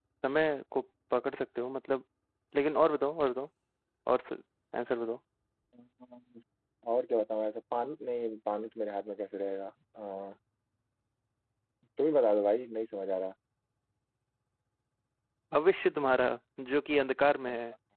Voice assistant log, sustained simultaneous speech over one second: none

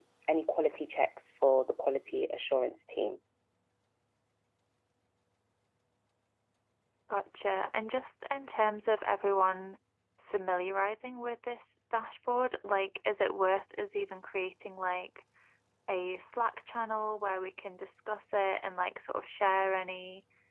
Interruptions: none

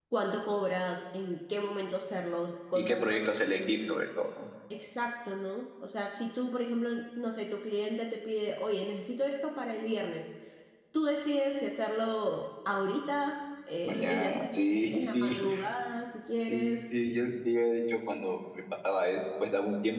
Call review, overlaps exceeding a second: present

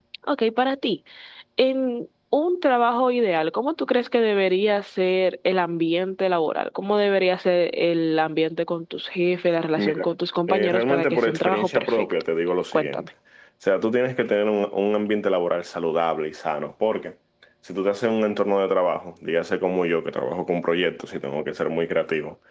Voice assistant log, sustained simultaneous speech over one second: present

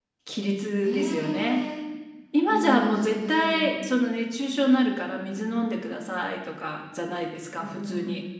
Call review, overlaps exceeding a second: present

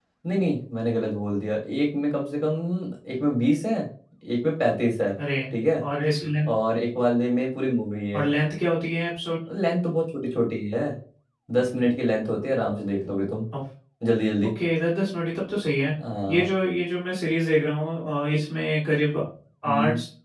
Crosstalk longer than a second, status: none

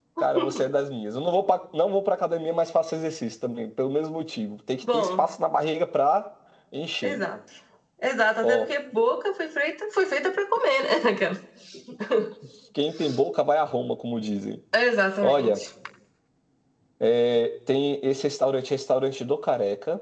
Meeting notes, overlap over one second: none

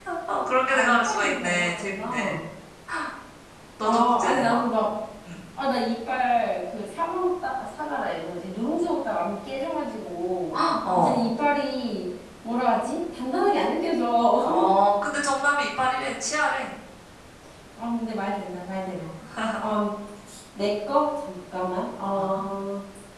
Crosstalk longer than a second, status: present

